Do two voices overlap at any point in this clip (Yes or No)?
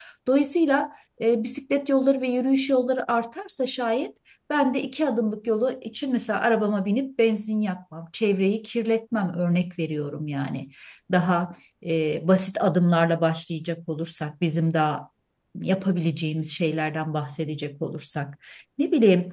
No